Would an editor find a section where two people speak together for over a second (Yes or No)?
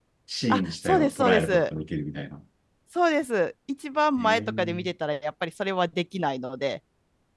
Yes